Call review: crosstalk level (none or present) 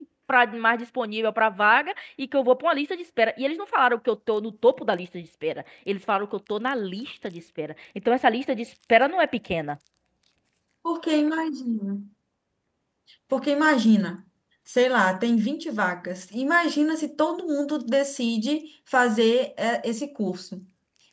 none